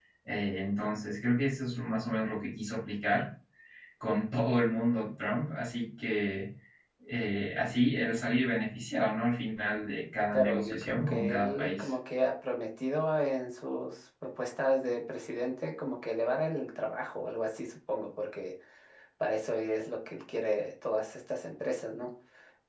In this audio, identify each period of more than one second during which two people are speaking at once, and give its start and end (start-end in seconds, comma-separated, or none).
10.3-11.9